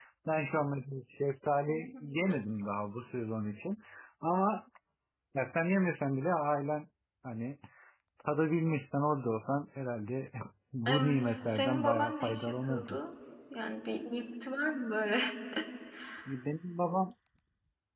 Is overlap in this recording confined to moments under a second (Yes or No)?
No